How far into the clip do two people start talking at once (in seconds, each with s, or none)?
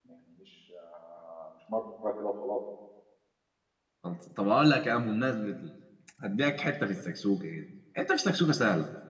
none